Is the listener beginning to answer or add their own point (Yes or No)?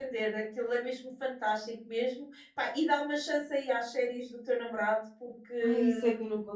Yes